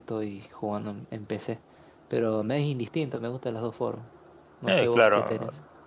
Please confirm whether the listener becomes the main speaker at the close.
Yes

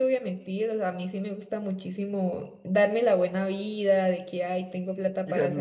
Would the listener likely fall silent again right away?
Yes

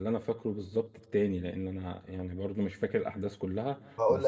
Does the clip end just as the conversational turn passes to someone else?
Yes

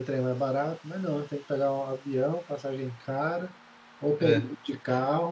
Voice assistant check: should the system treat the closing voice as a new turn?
No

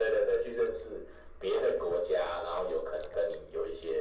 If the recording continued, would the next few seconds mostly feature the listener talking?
Yes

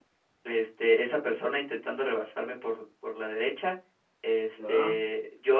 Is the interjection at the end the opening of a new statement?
No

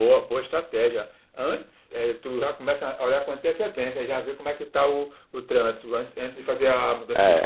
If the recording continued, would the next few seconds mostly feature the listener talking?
Yes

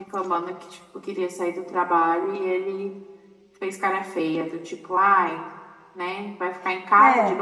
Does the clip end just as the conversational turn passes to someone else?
No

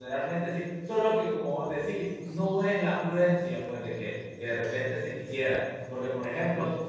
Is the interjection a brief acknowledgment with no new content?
Yes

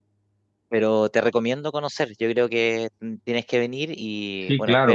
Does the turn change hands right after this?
No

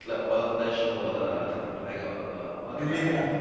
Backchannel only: Yes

